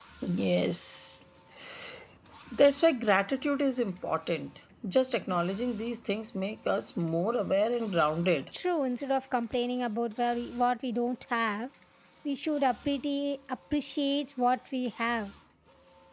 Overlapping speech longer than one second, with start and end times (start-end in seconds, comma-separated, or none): none